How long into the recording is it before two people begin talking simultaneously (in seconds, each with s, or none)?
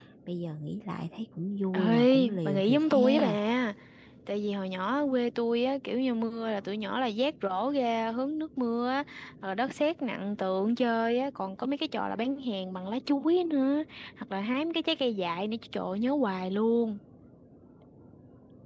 1.7 s